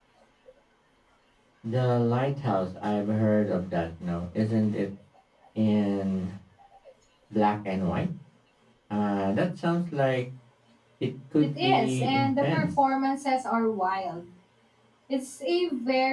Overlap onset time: 11.4 s

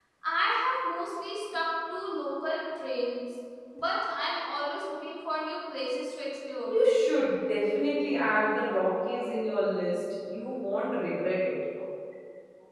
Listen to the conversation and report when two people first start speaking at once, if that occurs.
none

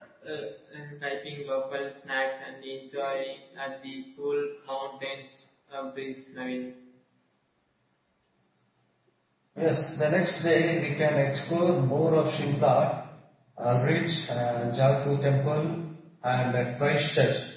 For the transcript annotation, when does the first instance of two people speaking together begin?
none

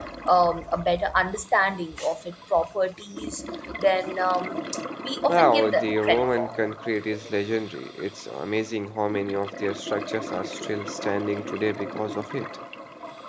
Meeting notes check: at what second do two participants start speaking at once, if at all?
5.3 s

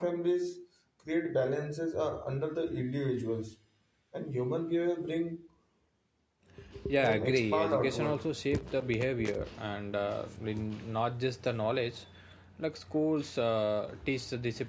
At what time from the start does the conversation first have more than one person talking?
7.0 s

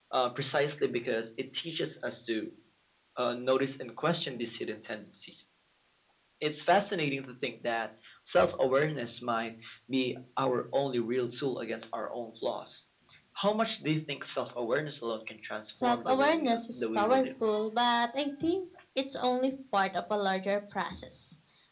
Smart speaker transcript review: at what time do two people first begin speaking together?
15.7 s

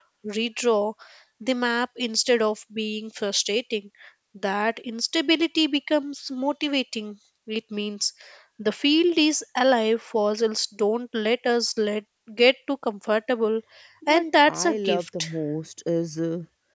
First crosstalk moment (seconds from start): 14.1 s

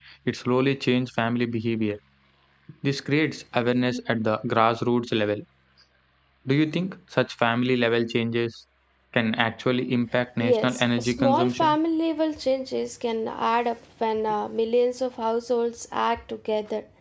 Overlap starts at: 10.4 s

